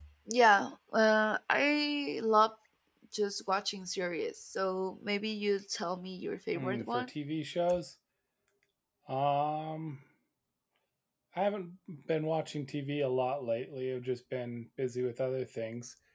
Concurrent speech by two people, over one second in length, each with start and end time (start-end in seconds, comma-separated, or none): none